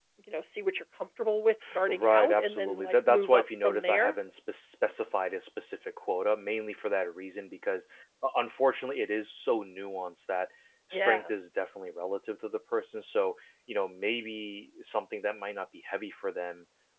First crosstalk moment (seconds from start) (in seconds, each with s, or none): 1.9 s